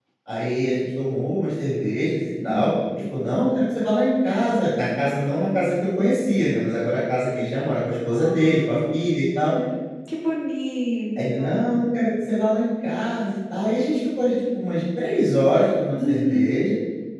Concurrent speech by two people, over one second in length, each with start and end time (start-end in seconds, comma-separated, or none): none